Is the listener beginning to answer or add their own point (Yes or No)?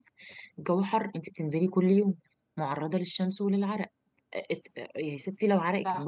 No